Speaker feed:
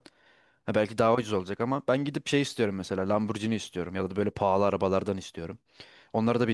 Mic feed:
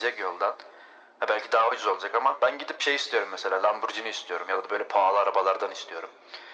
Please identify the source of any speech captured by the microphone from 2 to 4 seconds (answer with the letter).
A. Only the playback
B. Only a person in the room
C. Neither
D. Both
A